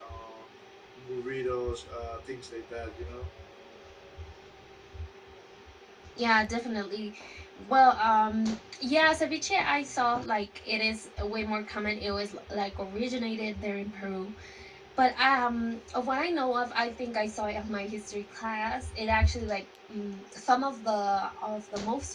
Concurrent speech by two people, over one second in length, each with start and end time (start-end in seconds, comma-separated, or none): none